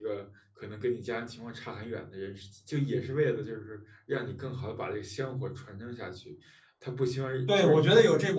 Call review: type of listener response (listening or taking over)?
taking over